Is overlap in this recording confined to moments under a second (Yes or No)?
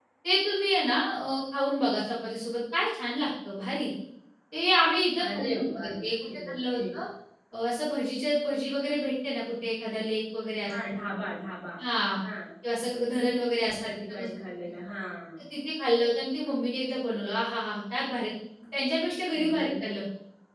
No